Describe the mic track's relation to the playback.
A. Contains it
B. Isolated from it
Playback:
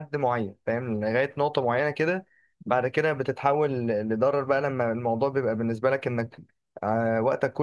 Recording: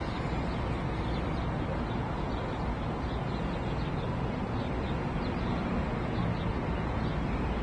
B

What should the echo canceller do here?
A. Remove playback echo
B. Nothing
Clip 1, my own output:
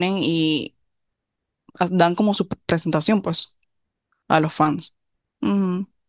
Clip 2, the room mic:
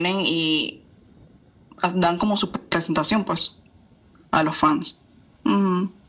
A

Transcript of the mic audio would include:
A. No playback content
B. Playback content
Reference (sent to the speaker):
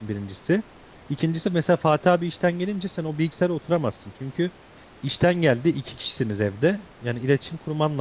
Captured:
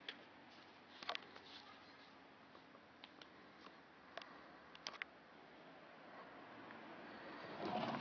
A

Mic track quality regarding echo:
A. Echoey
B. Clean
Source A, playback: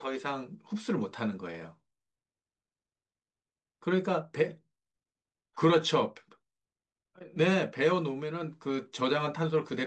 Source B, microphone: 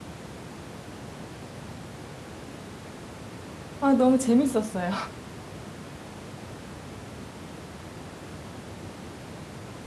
B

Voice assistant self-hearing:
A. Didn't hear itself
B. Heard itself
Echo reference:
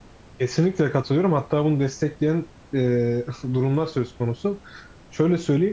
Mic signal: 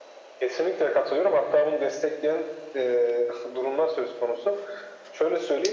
B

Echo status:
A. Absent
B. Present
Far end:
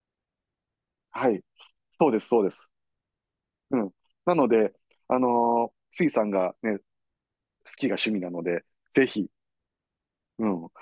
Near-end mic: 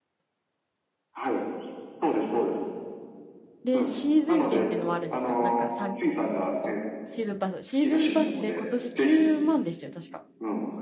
B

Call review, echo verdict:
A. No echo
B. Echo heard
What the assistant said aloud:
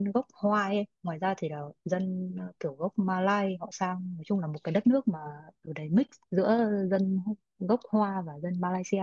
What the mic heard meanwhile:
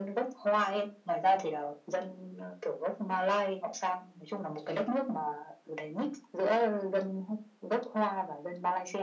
B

